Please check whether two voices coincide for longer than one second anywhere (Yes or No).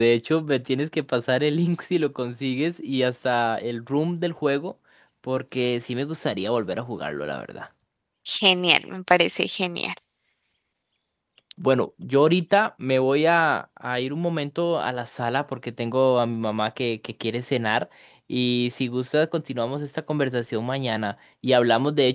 No